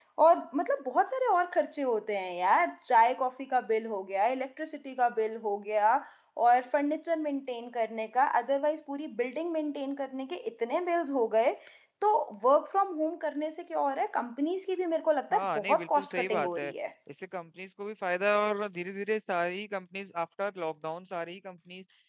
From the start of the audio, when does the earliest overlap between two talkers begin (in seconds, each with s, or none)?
15.3 s